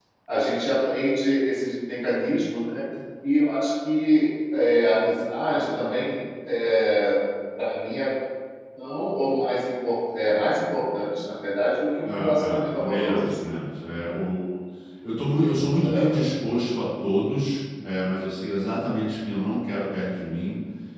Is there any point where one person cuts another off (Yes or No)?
Yes